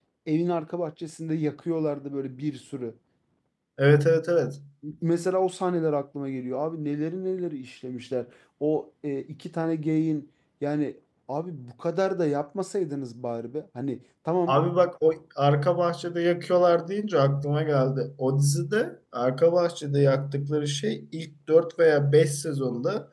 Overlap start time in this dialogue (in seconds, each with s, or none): none